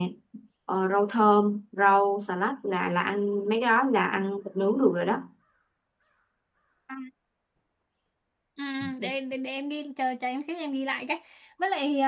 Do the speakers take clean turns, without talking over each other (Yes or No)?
Yes